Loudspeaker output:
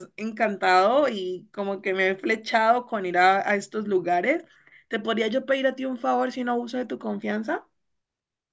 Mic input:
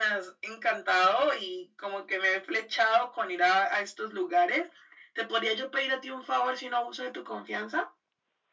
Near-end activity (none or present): none